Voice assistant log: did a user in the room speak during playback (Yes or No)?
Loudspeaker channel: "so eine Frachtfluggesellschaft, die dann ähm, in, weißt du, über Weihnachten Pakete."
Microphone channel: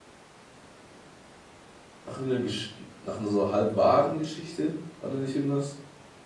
Yes